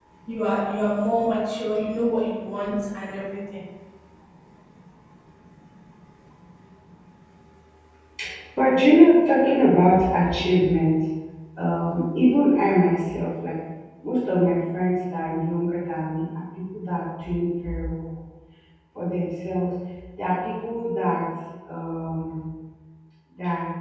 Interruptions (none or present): none